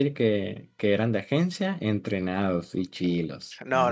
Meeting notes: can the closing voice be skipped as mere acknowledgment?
No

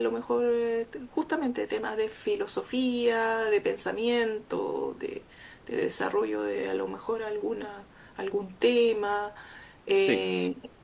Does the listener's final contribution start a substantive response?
No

